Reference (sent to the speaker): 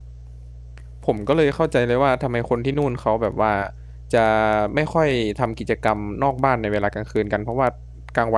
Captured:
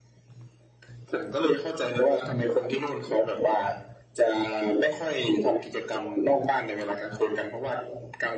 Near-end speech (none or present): none